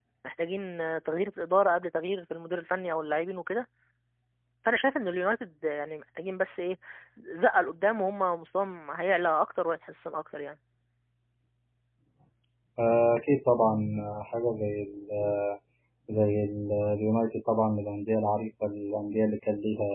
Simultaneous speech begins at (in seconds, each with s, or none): none